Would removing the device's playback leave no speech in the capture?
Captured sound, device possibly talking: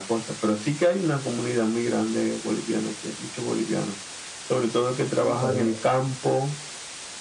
No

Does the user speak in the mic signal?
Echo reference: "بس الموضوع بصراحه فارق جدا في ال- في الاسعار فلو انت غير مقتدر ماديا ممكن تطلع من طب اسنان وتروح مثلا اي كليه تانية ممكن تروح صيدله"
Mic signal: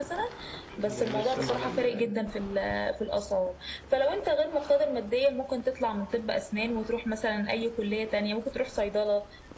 Yes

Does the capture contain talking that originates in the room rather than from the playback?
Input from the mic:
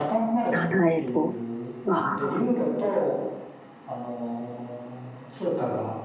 Yes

